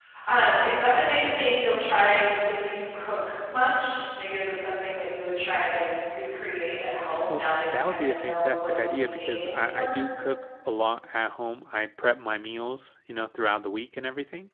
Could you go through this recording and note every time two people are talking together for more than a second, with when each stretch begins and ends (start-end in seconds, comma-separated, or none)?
7.3-9.9